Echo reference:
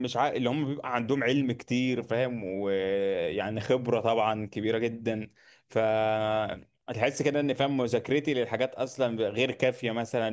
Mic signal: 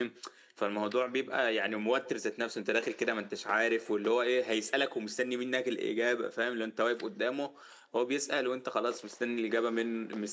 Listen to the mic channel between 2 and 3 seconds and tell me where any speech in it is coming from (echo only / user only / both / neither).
user only